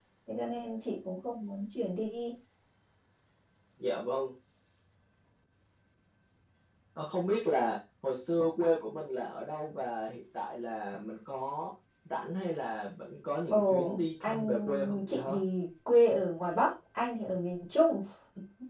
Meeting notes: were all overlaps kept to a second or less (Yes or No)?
No